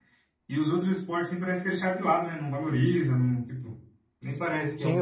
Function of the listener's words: taking over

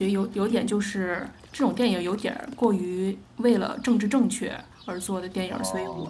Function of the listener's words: listening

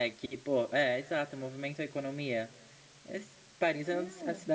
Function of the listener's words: listening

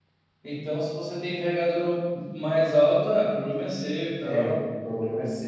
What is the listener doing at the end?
taking over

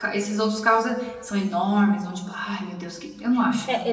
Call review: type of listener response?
taking over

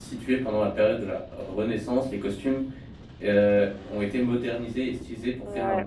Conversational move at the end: listening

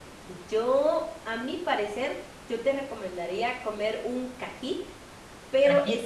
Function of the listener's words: listening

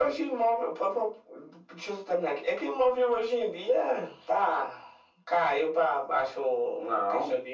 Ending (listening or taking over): listening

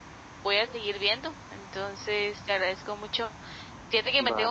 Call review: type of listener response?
listening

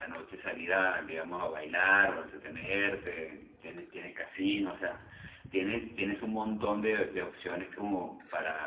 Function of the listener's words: taking over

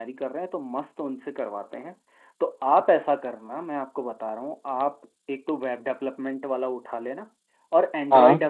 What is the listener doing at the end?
listening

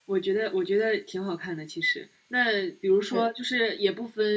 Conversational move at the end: listening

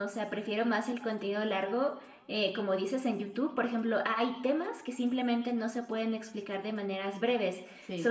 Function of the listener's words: listening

